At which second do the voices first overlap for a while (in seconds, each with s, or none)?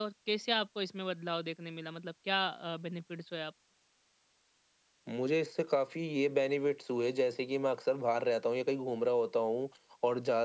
none